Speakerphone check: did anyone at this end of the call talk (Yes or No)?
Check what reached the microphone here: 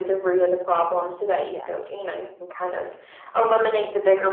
Yes